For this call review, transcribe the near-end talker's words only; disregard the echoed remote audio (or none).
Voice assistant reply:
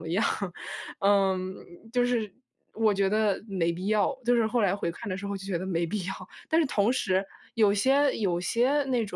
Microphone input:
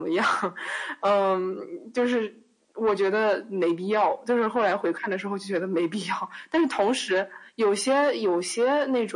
none